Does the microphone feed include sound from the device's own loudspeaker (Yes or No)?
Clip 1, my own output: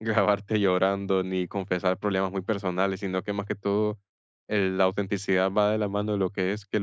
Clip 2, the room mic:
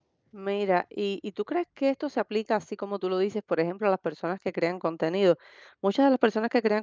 No